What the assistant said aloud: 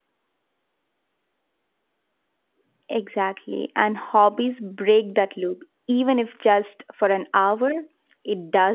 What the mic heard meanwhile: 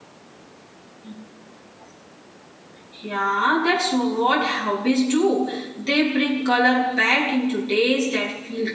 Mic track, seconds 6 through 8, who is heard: user only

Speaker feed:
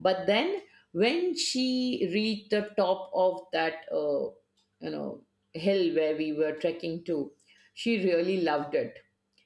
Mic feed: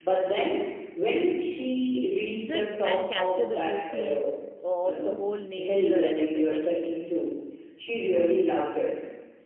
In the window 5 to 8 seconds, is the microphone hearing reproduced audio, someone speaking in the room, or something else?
both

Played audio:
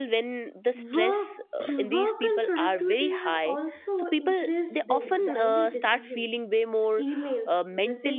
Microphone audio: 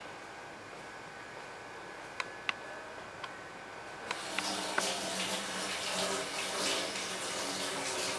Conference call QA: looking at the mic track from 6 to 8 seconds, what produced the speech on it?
neither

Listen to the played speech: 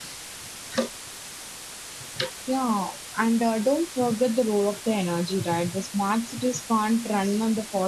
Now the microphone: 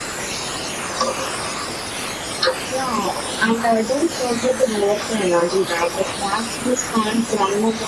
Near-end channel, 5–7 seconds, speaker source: echo only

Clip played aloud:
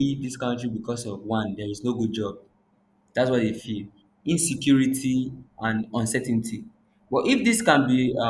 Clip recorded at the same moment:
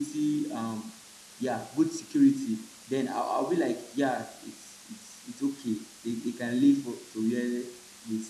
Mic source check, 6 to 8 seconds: user only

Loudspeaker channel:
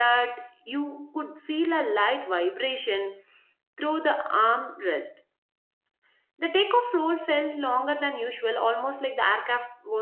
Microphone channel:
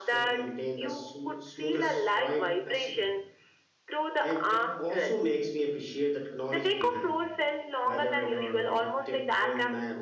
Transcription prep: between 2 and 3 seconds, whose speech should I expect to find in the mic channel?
both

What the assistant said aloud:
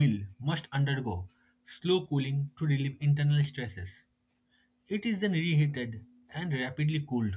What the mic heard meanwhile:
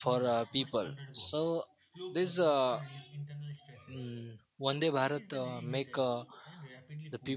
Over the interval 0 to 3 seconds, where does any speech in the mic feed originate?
both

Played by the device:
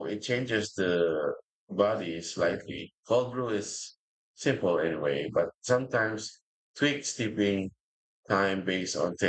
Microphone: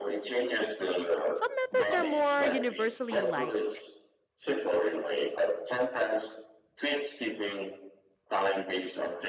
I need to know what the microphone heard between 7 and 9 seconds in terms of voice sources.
echo only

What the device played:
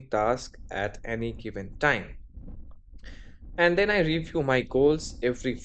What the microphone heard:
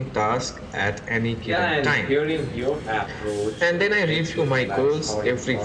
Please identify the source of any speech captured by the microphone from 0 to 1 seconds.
echo only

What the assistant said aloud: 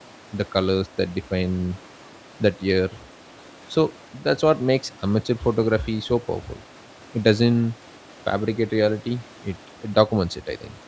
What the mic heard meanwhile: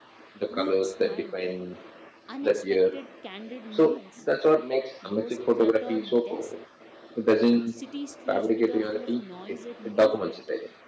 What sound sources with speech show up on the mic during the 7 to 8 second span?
both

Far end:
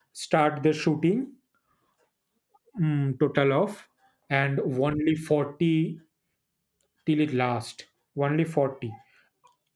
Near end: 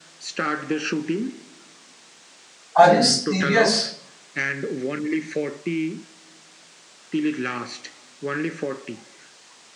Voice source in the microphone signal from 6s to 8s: echo only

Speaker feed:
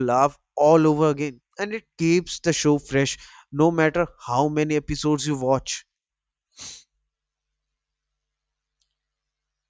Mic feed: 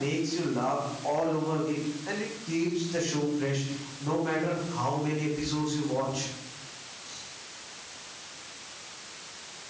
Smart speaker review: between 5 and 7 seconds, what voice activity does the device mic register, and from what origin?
echo only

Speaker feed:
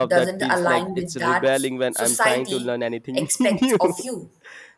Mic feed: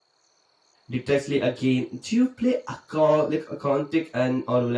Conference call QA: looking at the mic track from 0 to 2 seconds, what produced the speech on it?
user only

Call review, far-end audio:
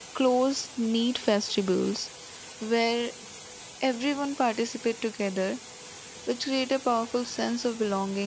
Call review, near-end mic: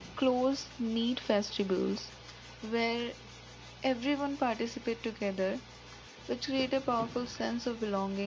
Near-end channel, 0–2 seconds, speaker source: echo only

